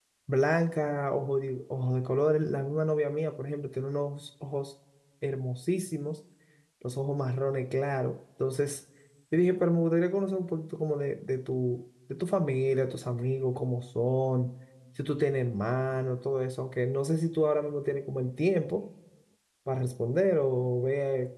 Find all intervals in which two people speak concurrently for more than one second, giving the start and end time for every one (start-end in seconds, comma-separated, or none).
none